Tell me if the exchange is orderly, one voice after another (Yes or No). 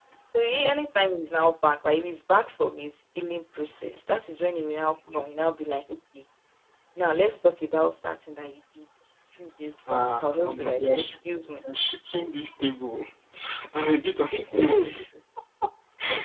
No